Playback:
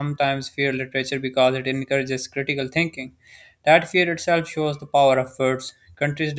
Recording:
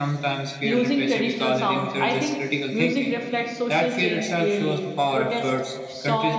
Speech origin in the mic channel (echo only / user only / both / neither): both